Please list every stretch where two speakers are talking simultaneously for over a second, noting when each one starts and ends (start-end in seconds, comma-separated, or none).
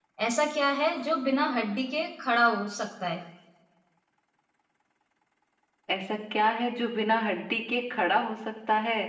none